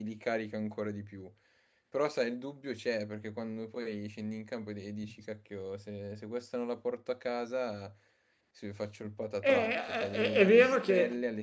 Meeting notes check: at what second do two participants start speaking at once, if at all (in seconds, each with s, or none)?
9.4 s